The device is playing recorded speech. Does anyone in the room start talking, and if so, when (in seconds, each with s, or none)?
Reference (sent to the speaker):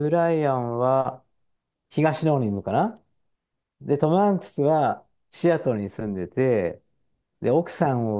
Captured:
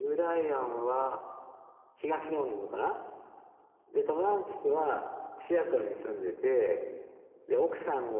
none